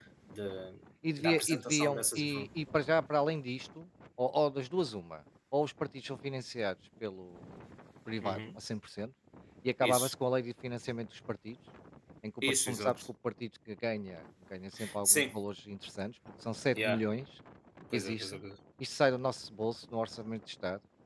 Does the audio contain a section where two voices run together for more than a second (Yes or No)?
Yes